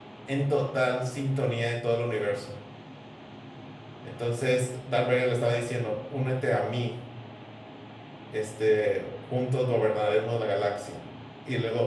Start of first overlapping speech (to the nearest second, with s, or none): none